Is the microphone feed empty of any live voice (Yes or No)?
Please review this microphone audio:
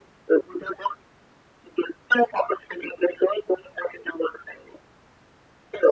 Yes